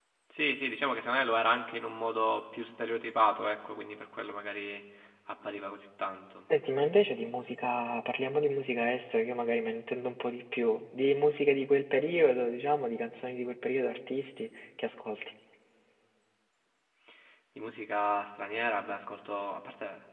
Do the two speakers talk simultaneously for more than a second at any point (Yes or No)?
No